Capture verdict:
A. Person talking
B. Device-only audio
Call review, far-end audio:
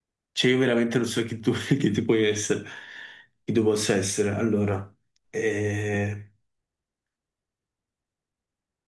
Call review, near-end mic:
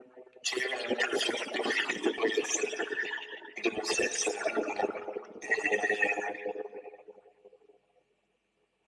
B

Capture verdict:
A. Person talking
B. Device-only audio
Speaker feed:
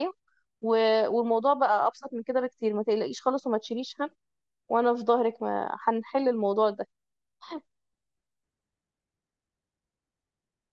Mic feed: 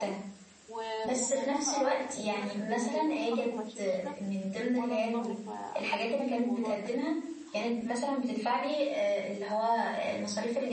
A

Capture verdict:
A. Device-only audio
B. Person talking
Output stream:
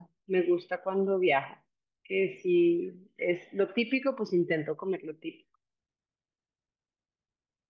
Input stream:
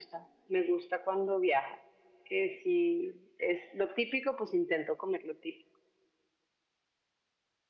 A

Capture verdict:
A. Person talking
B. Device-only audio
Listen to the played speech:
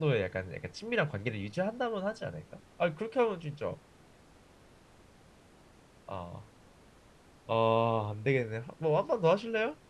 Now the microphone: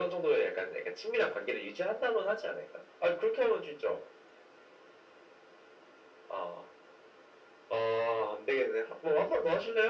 B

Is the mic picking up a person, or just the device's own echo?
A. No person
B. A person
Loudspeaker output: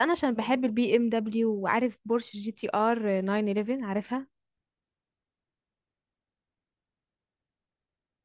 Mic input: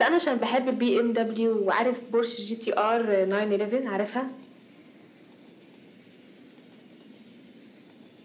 A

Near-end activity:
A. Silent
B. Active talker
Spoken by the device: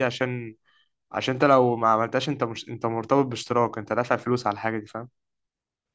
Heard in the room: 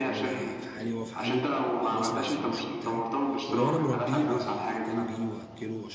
B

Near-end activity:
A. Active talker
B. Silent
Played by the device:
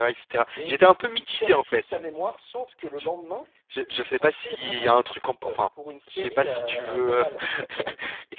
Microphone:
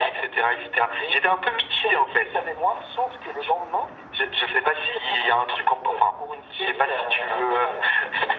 B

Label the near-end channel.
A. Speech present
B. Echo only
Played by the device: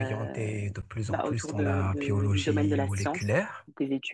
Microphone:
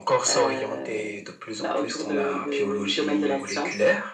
B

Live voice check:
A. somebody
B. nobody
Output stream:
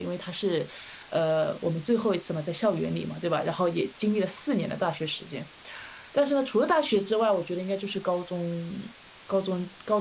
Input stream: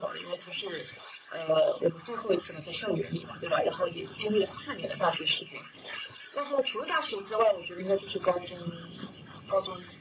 B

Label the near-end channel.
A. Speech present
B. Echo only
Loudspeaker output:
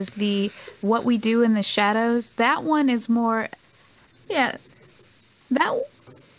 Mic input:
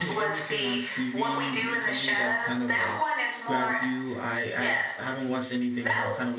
A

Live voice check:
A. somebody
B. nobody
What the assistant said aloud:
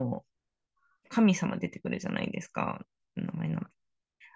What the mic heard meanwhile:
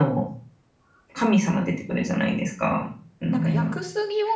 A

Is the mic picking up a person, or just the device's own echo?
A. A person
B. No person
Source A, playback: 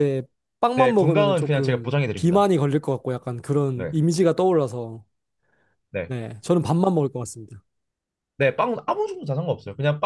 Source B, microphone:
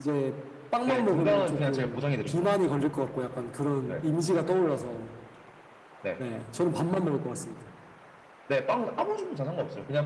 B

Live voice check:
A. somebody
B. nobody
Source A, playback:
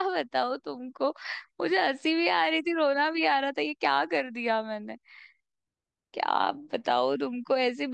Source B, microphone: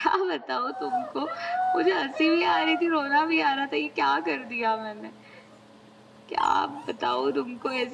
B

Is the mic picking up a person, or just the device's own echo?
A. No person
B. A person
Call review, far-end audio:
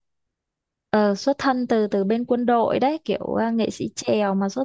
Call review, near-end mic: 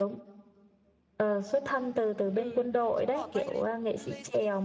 B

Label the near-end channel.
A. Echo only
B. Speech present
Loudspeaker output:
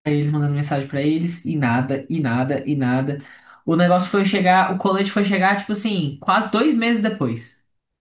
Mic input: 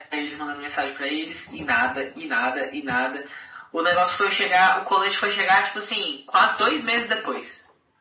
A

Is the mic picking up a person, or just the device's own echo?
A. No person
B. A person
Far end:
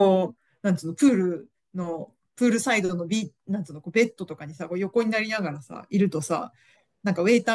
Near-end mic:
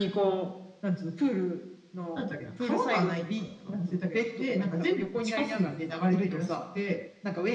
B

